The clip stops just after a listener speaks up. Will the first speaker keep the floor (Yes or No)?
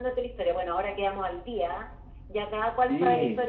Yes